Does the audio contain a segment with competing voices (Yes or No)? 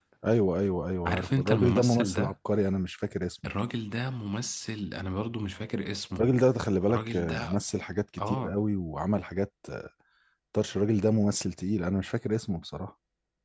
Yes